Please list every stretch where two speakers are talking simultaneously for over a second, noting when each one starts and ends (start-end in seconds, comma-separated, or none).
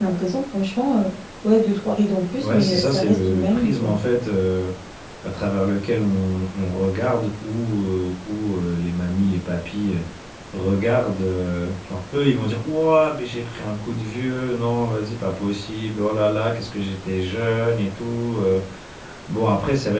2.4-3.9